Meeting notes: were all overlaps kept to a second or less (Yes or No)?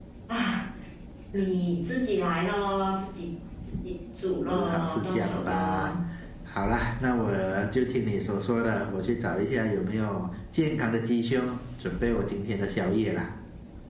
No